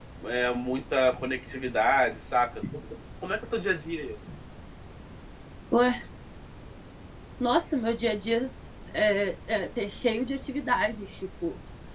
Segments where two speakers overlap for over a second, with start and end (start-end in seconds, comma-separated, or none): none